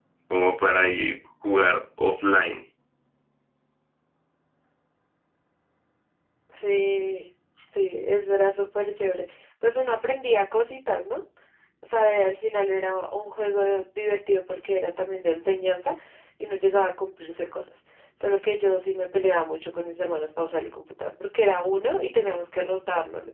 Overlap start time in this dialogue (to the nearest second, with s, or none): none